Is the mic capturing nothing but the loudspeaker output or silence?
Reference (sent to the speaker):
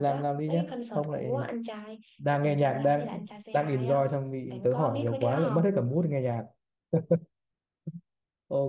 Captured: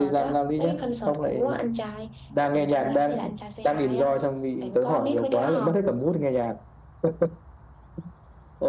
Yes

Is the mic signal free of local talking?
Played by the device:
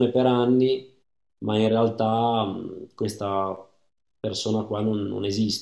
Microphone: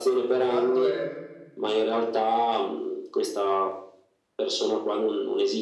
No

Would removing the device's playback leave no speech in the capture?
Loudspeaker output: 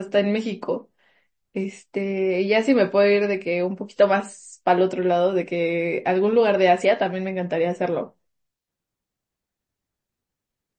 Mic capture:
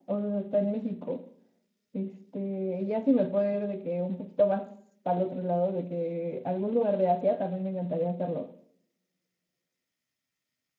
Yes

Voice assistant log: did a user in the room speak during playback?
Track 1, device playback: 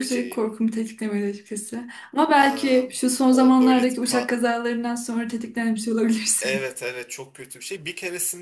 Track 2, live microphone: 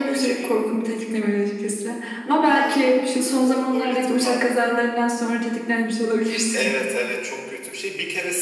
No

